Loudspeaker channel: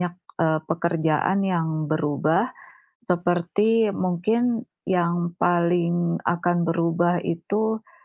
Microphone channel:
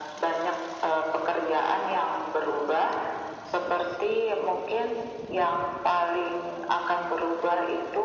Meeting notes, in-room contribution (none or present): none